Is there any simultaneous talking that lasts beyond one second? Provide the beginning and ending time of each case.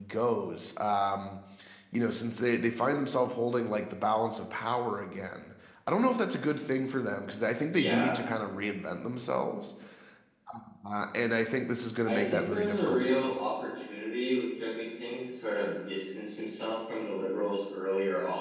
12.1-13.4

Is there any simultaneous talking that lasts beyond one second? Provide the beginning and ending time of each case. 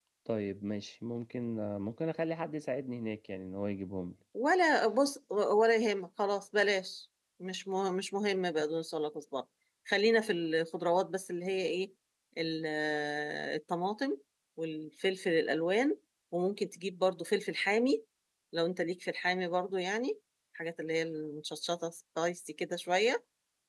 none

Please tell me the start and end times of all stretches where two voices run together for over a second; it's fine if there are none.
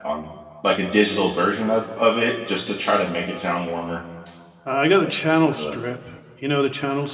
none

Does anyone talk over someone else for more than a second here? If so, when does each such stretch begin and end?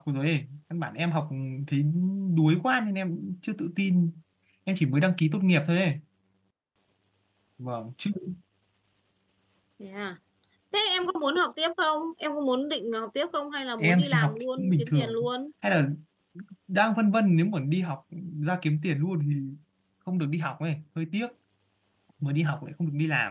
13.8-15.2

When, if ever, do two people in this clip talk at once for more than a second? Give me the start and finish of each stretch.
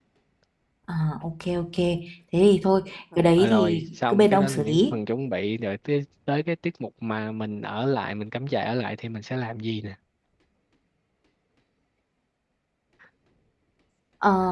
3.4-4.9

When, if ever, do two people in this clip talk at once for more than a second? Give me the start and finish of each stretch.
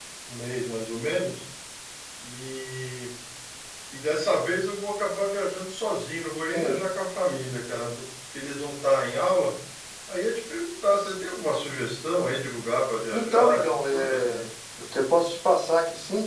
13.2-14.5

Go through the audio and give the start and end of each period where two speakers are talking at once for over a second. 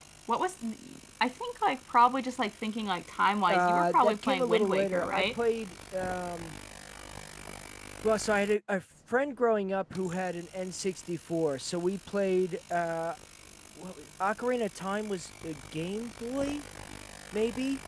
3.5-5.3

